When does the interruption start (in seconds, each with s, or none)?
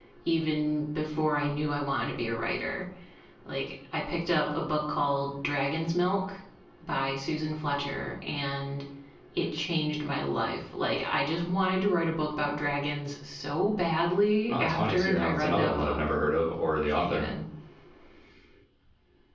14.5 s